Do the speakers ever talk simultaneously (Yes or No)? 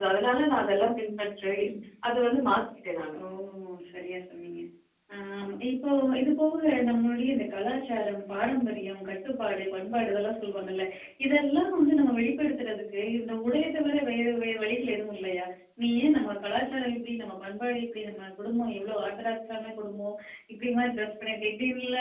No